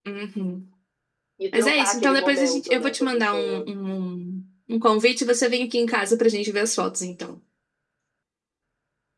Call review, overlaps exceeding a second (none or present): present